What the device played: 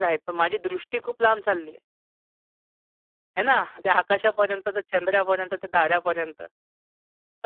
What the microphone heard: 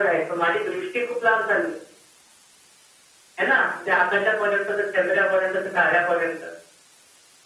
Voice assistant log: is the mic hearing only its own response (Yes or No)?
Yes